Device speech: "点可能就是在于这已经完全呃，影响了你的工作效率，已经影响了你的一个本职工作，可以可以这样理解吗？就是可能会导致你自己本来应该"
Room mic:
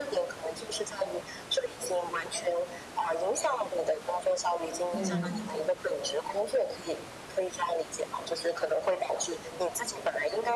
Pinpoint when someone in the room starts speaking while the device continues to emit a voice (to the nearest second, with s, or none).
5 s